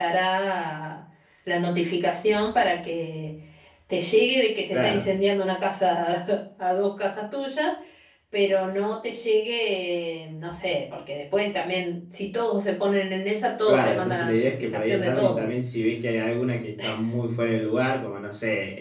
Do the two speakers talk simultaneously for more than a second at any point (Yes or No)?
Yes